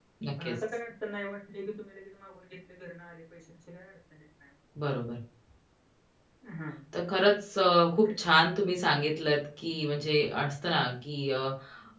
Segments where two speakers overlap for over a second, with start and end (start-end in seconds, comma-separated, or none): none